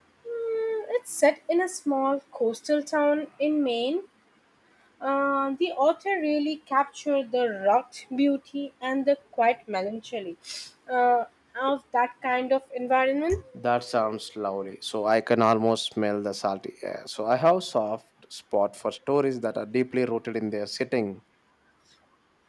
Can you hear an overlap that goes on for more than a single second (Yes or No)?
No